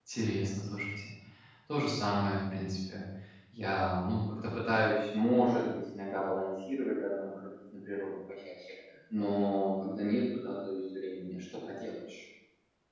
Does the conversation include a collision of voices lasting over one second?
No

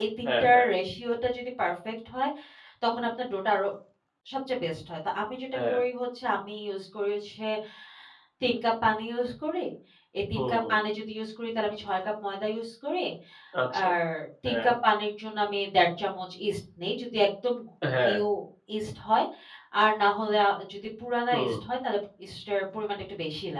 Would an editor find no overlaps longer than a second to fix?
Yes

